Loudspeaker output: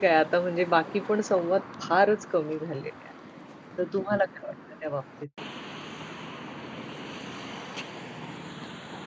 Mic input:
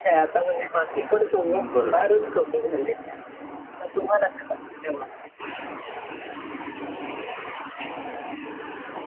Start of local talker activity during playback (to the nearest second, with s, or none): 1 s